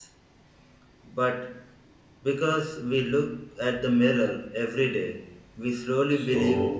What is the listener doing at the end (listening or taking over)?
taking over